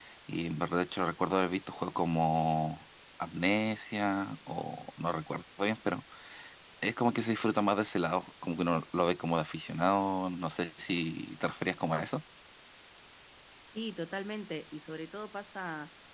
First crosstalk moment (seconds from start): none

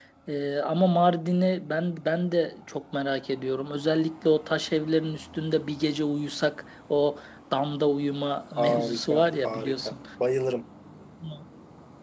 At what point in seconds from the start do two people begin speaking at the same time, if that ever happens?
9 s

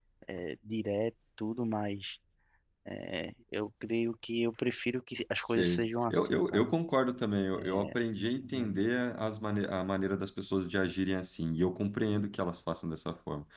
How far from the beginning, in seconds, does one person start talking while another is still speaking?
5 s

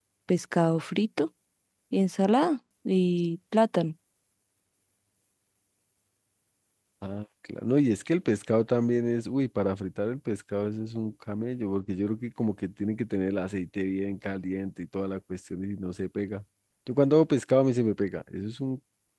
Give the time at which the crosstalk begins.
none

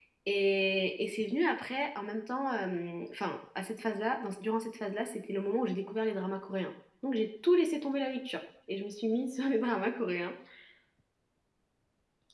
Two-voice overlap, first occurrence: none

